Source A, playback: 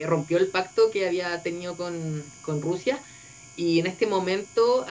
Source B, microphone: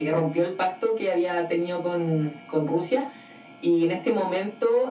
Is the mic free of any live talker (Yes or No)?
Yes